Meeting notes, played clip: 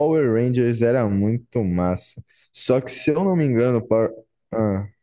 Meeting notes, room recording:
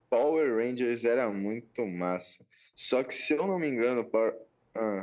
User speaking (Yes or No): No